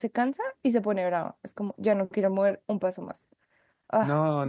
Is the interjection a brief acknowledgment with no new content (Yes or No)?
No